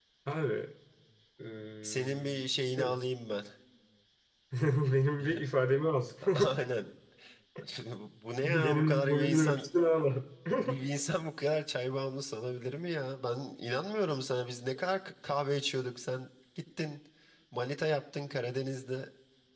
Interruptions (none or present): present